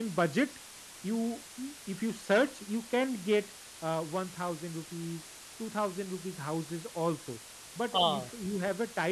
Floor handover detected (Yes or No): No